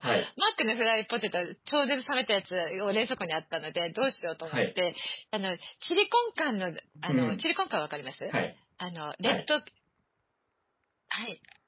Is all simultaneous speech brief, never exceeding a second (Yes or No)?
Yes